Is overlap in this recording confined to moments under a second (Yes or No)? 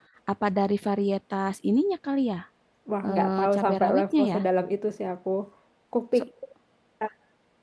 No